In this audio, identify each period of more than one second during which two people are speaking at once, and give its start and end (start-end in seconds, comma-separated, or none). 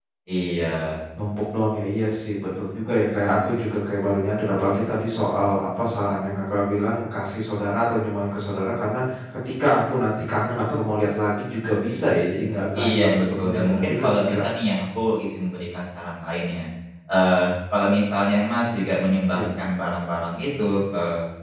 12.8-14.4